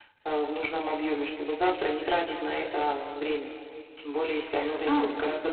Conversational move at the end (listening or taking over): taking over